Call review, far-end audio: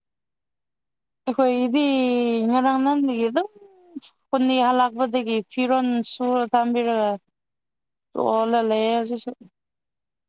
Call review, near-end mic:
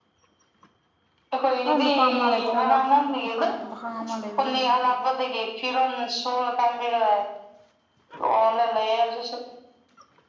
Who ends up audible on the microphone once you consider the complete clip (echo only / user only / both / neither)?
both